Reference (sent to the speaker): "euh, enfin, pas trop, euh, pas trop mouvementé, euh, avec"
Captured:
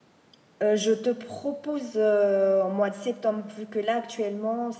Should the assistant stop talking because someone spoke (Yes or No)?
Yes